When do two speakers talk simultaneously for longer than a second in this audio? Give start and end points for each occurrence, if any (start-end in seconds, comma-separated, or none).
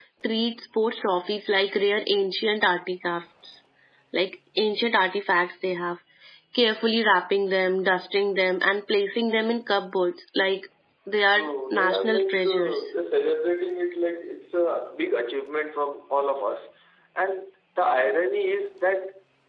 11.3-12.9